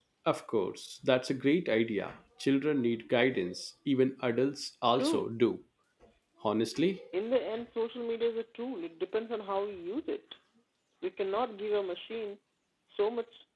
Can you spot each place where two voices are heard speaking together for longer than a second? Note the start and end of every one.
none

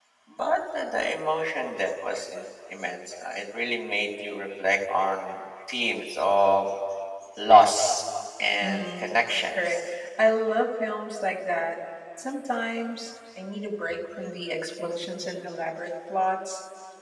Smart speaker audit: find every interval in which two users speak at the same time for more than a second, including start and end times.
8.6-9.8

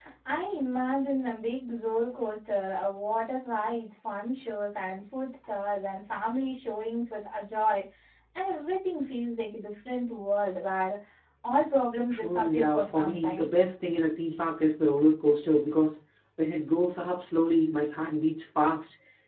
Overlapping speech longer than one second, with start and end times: 12.1-13.6

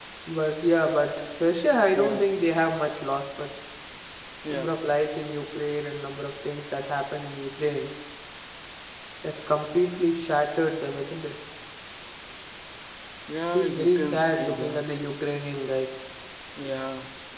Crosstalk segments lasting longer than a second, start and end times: 13.5-14.8

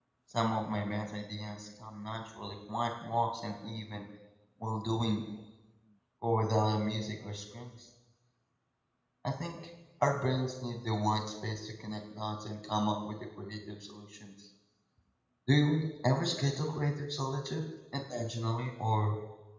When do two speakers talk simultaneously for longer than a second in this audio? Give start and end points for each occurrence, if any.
none

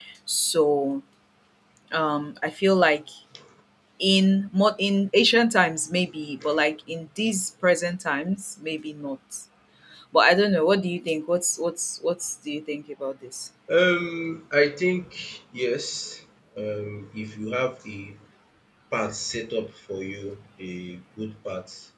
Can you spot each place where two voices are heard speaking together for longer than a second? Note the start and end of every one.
none

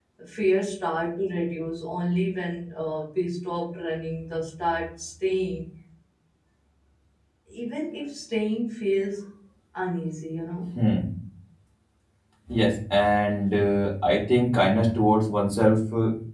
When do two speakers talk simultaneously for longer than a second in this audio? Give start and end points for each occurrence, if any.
none

